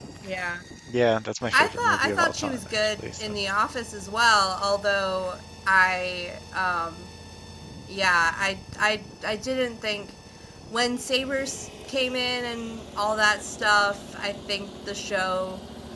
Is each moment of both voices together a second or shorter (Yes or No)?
No